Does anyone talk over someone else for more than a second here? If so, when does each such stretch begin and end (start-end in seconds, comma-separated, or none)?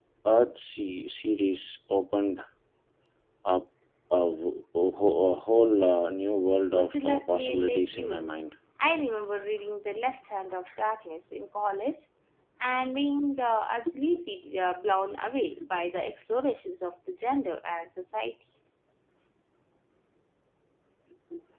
6.7-8.3